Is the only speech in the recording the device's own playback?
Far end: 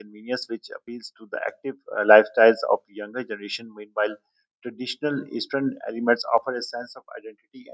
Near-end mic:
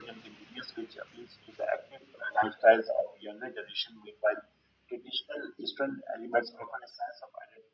Yes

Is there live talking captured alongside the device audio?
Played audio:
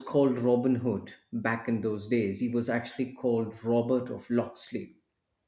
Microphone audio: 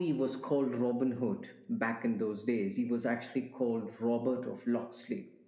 No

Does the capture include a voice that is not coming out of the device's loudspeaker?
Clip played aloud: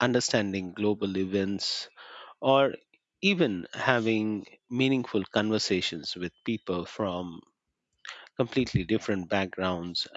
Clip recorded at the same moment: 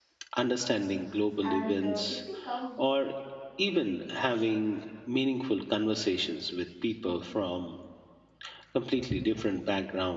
Yes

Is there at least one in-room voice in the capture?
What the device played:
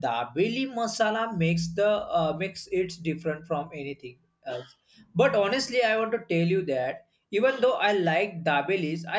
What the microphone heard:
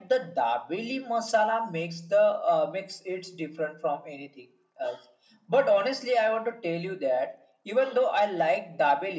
No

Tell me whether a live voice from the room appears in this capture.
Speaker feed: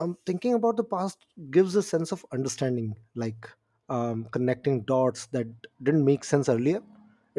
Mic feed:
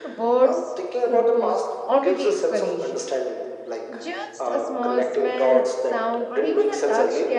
Yes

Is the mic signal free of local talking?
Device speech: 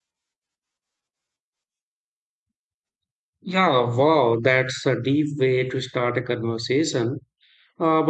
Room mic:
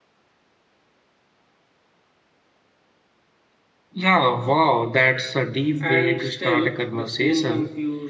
No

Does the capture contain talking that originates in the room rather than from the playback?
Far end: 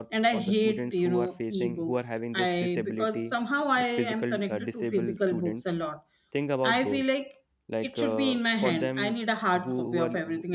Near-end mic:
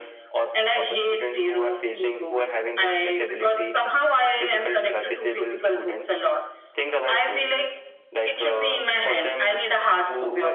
No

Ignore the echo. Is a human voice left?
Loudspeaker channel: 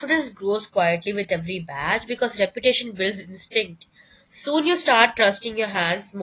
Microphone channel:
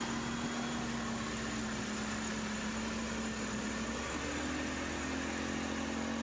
No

